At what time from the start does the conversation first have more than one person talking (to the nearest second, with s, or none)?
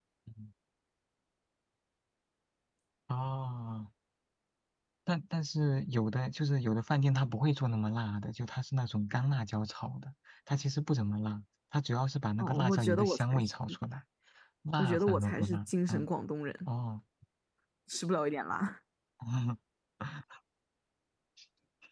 12 s